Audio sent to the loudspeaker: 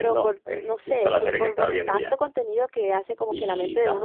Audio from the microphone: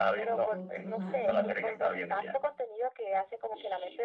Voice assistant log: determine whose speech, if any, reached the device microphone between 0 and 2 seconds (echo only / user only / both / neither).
both